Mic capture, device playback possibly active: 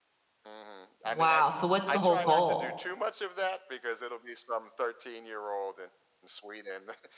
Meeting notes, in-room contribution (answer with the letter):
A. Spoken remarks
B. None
A